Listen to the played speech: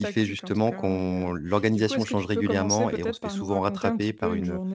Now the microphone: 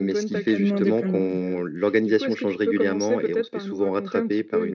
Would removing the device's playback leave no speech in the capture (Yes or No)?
No